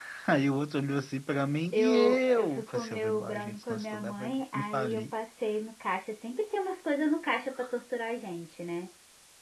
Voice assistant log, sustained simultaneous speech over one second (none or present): present